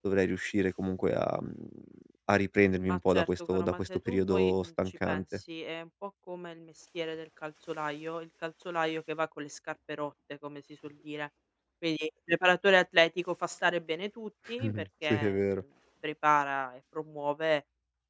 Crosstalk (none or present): present